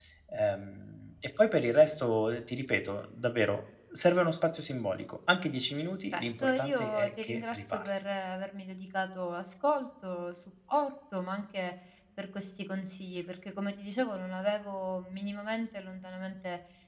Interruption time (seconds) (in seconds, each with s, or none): 6.1 s